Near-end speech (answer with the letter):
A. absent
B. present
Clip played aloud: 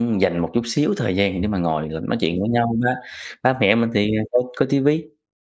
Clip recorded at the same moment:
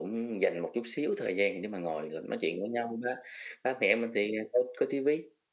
A